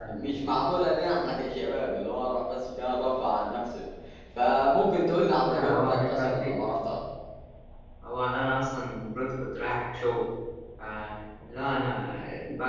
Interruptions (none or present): present